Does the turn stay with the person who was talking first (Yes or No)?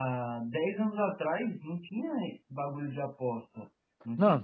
No